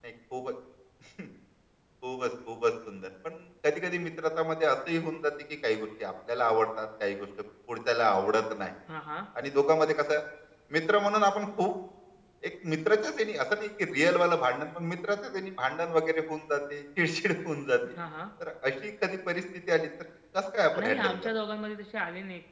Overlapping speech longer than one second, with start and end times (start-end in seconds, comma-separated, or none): none